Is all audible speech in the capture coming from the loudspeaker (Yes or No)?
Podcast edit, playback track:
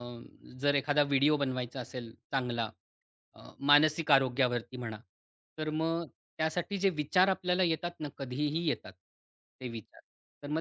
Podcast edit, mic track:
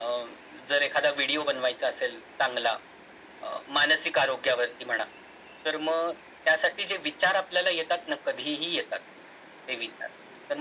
Yes